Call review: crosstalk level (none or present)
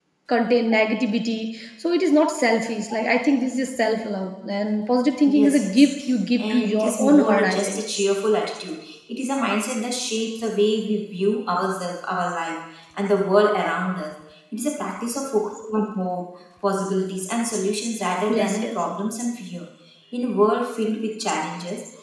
present